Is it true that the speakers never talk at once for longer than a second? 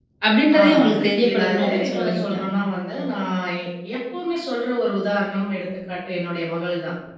No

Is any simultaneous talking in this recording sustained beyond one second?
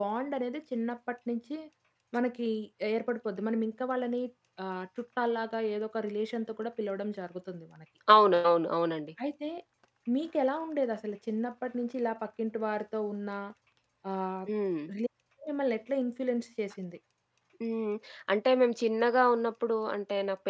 No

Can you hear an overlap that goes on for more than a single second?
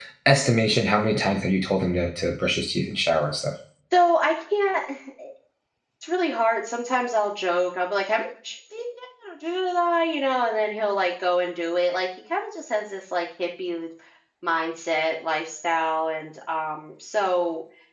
No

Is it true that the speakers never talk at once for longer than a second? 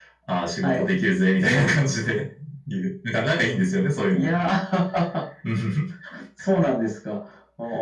Yes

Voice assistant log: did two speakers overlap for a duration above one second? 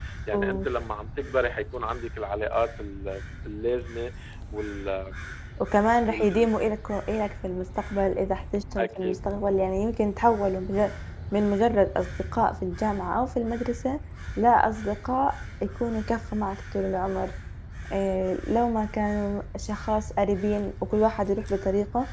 No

